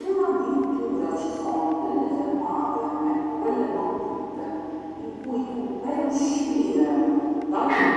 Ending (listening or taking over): listening